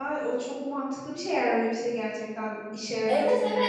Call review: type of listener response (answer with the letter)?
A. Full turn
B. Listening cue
A